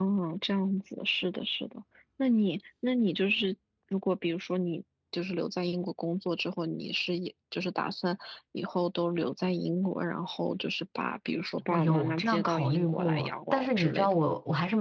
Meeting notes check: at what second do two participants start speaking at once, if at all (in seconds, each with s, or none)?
11.7 s